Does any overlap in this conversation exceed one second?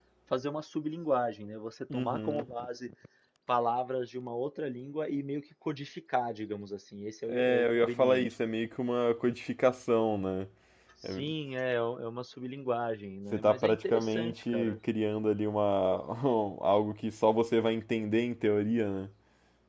Yes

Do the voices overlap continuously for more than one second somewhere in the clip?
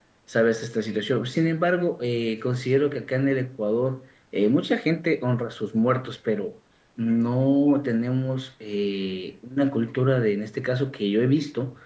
No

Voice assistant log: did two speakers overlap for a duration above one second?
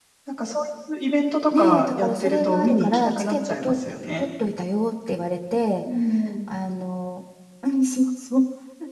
Yes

